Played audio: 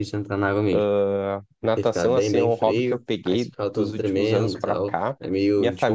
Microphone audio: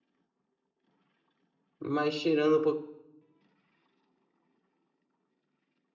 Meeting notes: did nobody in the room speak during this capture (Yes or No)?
No